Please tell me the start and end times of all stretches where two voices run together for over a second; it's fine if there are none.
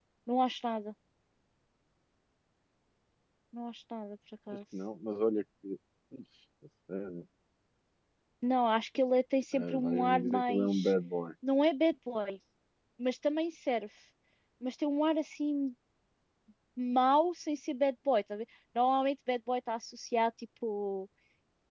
9.5-10.9

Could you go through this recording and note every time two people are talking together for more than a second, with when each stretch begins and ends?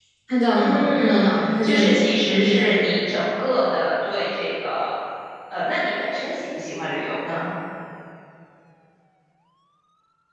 0.5-2.8

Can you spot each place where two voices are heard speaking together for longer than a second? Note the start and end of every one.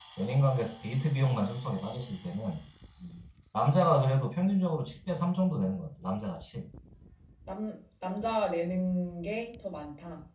none

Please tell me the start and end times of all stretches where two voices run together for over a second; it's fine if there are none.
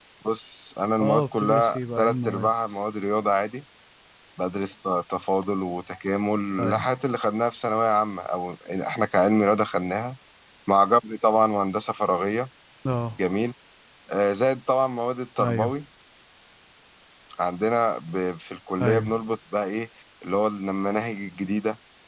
1.0-2.5

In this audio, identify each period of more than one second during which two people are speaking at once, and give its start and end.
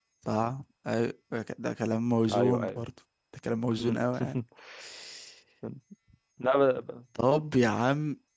none

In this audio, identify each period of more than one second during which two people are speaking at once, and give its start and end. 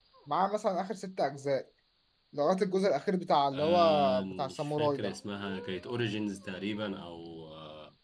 3.5-5.1

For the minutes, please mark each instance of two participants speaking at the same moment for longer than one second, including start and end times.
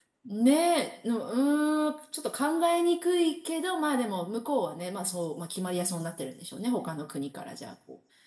none

